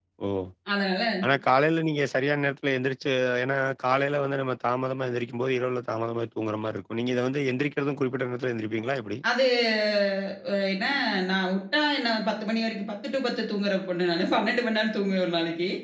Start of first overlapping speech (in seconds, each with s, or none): none